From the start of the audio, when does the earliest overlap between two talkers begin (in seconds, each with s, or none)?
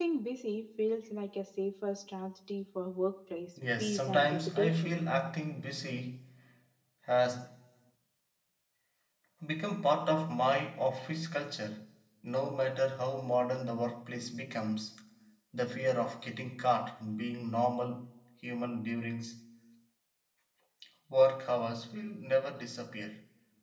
3.6 s